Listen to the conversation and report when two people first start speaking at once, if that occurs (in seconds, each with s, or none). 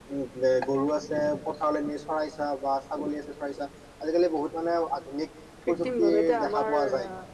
5.6 s